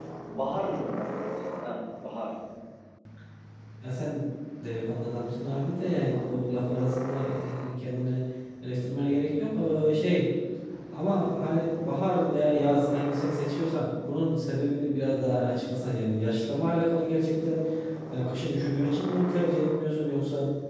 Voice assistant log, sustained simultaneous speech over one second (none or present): none